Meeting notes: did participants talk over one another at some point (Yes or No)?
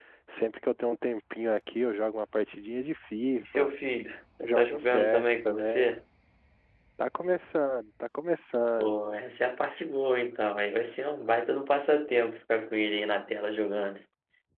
Yes